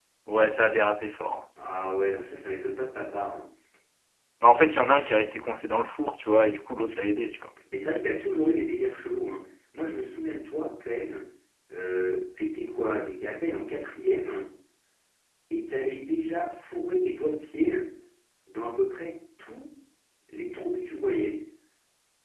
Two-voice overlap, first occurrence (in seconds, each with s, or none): none